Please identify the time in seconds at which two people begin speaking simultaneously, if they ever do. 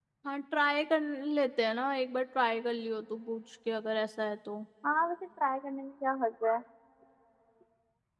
none

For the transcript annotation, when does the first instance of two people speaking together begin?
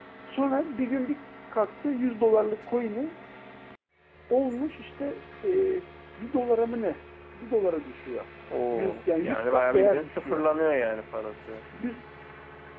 8.7 s

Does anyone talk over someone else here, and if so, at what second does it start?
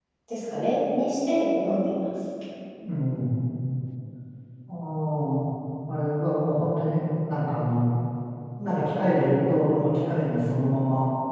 none

